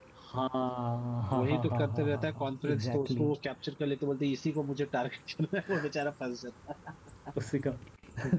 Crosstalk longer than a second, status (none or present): present